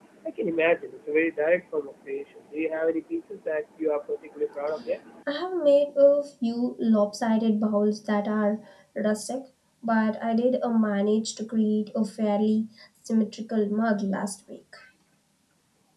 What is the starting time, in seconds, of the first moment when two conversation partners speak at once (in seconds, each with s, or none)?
none